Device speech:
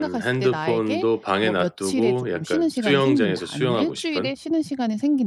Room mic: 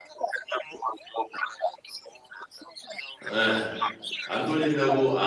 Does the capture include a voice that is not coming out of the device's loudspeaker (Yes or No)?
Yes